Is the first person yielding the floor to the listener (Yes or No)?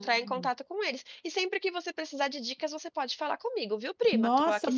Yes